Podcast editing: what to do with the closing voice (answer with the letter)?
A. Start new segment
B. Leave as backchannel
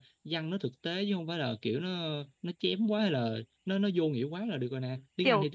A